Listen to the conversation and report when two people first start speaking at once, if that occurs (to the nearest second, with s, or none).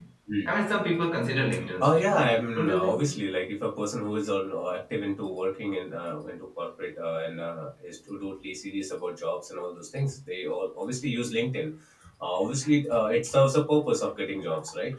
2 s